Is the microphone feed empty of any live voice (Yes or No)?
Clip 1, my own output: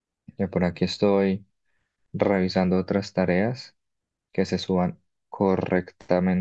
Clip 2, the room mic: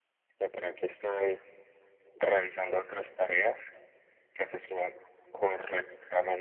Yes